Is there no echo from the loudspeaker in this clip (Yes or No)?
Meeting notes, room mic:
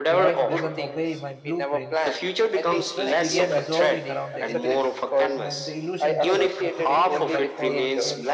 No